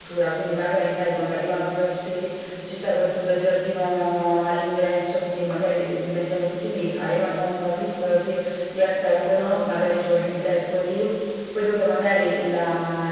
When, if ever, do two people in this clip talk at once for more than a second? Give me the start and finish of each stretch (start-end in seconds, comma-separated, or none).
none